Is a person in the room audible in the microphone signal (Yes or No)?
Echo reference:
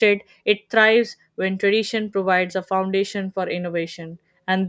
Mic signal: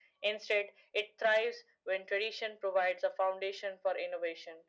No